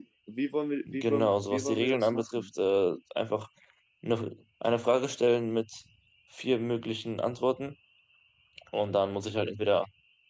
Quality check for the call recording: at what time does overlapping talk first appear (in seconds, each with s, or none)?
0.9 s